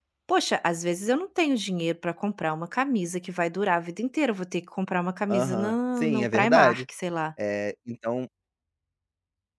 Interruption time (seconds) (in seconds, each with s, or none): 5.3 s